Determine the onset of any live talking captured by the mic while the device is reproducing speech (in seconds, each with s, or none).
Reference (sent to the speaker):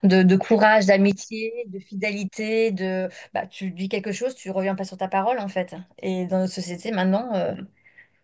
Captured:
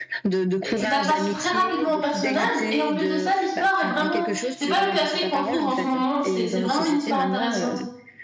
0.6 s